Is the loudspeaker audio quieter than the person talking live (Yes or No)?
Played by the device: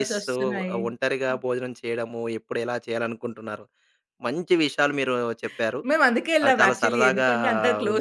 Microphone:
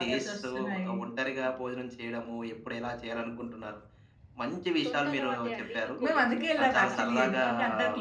No